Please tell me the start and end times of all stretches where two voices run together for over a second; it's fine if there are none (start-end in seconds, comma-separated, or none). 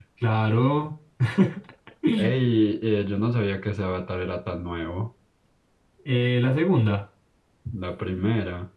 none